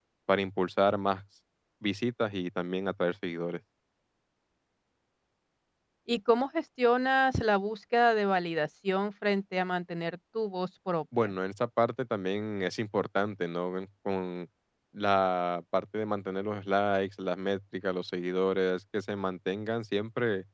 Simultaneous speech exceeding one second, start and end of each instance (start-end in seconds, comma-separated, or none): none